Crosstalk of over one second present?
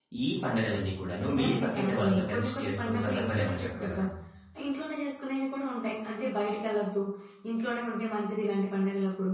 Yes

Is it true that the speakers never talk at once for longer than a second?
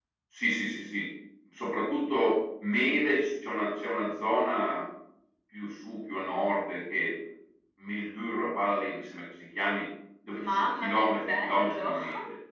No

